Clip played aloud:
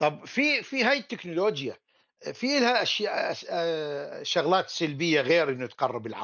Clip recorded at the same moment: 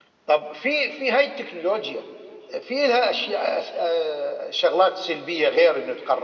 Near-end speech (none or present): none